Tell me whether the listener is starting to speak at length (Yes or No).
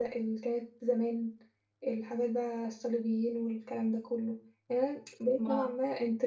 No